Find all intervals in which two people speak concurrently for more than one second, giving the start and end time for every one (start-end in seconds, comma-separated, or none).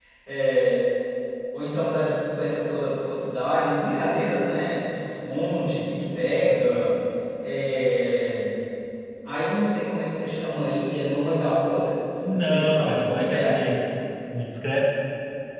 12.4-13.8